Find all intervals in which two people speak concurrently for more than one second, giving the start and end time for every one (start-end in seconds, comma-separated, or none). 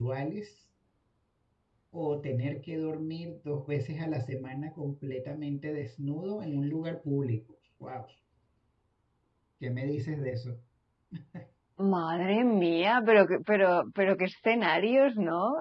none